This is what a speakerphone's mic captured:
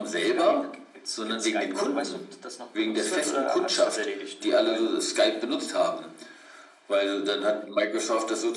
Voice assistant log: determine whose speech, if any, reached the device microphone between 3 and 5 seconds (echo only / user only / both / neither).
echo only